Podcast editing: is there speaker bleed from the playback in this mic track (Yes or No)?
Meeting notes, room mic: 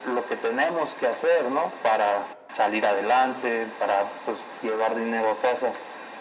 Yes